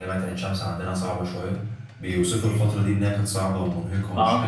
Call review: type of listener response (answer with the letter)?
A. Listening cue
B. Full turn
A